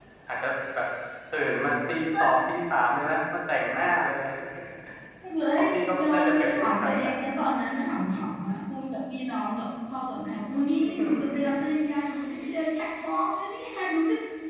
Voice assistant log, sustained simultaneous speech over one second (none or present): present